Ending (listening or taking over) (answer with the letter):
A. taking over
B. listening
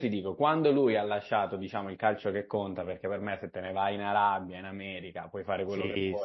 B